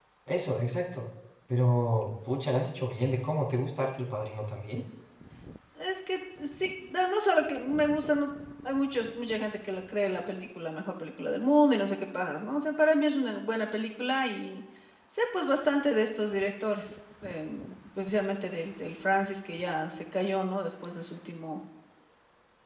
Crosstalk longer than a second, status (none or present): none